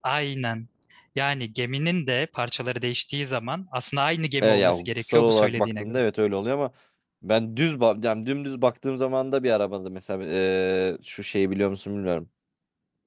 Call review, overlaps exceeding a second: present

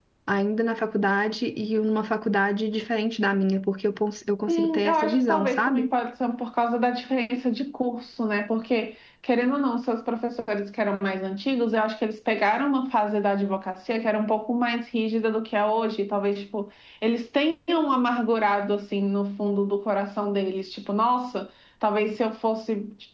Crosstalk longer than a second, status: present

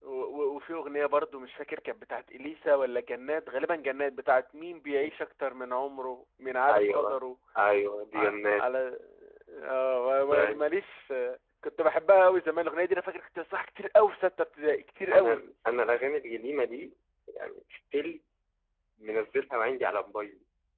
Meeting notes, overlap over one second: none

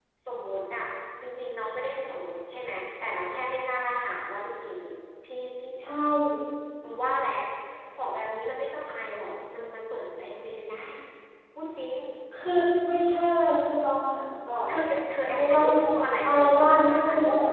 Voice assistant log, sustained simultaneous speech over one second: present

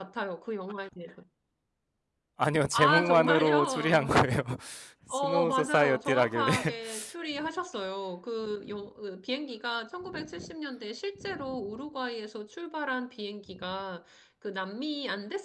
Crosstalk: present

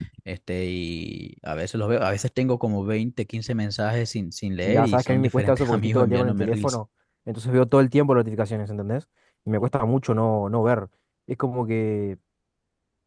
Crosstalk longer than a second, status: present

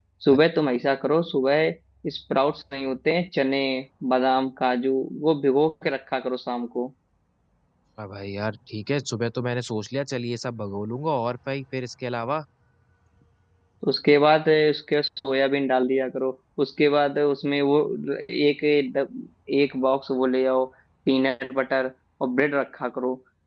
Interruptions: none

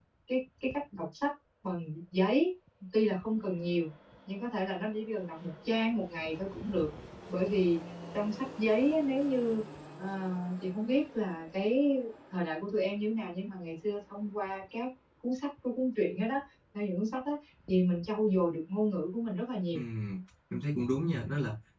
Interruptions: none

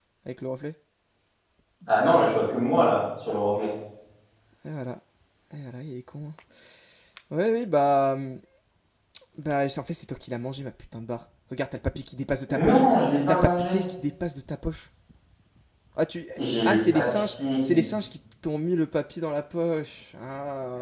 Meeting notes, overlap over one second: present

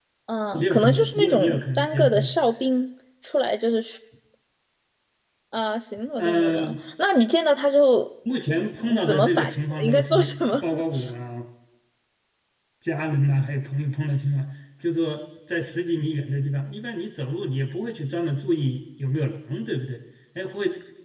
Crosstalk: present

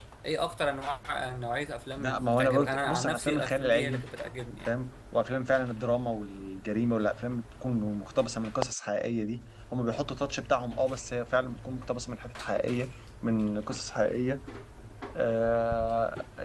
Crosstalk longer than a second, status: present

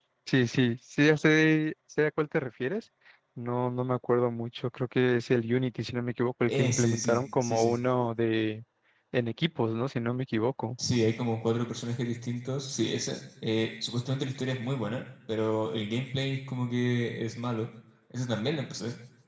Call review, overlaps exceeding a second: present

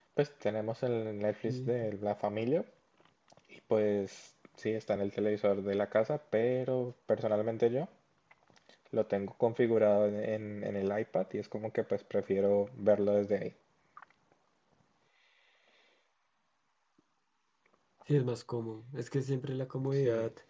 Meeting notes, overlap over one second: none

